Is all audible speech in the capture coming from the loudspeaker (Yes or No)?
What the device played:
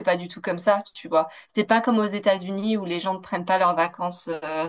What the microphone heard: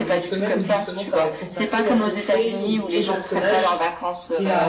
No